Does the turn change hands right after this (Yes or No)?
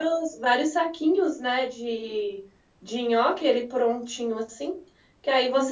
No